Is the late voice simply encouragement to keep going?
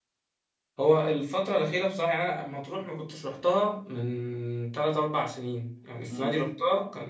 Yes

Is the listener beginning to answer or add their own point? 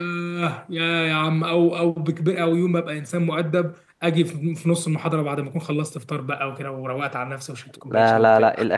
Yes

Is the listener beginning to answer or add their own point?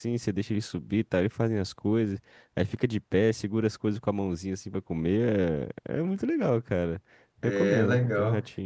Yes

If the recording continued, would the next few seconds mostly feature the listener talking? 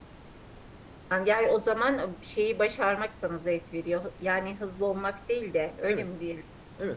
Yes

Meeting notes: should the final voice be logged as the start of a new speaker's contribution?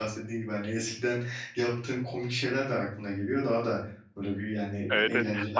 Yes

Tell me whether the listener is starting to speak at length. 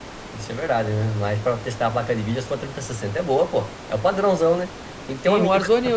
Yes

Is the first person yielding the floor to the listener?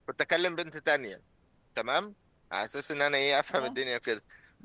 No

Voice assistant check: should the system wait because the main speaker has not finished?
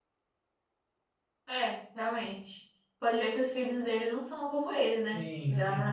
No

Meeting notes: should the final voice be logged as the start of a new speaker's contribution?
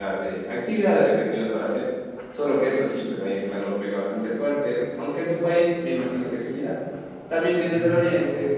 No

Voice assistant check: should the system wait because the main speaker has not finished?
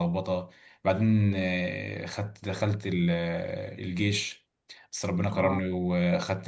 Yes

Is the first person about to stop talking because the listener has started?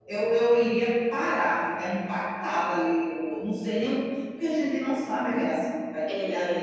No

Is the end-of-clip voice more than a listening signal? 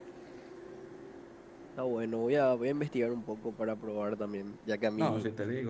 Yes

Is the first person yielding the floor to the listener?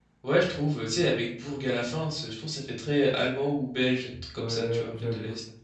Yes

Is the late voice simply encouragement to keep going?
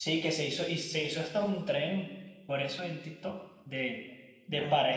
Yes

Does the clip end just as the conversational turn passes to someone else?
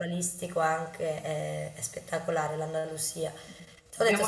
No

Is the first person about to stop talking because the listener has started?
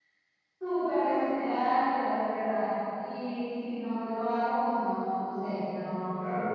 Yes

